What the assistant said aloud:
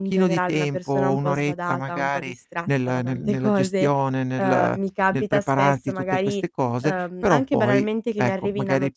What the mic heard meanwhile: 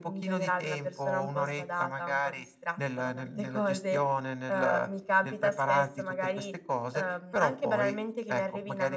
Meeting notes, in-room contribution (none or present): none